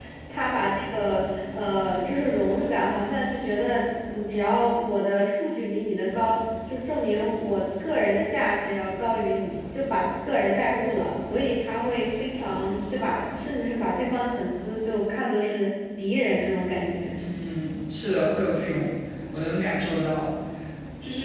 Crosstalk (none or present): none